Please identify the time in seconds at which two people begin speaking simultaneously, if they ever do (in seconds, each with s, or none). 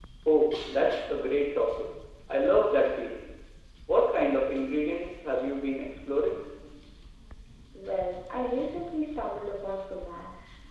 none